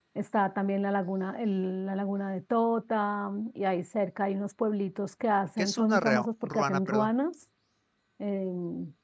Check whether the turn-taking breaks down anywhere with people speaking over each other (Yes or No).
Yes